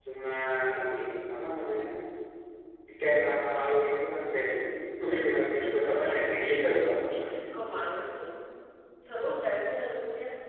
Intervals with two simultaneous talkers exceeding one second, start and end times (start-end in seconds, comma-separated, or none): none